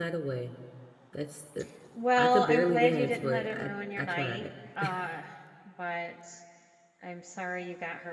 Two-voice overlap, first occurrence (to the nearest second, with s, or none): 2 s